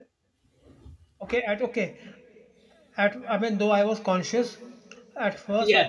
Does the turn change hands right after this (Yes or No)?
No